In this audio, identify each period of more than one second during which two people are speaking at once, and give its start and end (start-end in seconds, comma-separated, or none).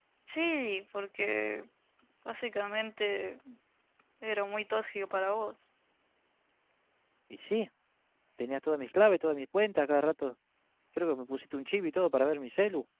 none